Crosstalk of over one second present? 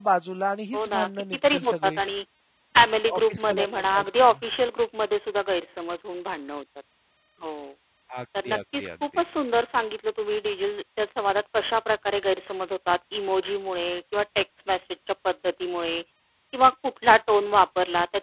Yes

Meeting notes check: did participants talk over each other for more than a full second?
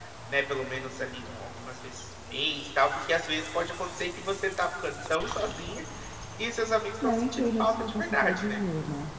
Yes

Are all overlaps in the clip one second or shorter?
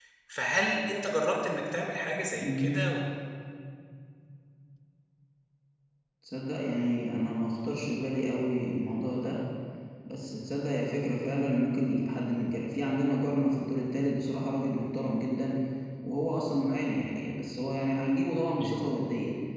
Yes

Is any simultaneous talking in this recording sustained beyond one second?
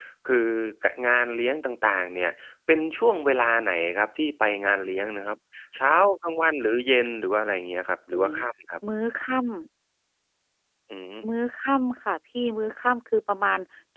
No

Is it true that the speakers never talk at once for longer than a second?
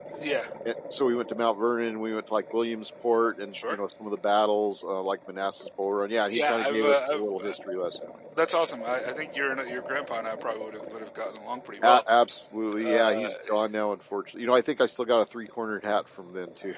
No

